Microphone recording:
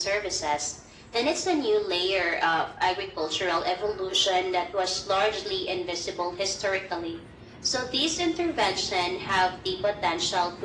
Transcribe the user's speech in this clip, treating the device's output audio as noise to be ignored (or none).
none